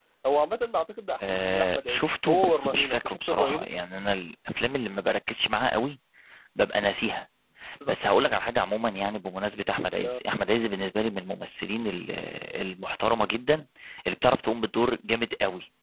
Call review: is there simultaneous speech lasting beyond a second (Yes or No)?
Yes